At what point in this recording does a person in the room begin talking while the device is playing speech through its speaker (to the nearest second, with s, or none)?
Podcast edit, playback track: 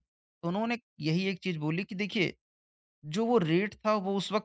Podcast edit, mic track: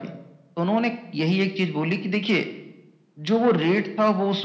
none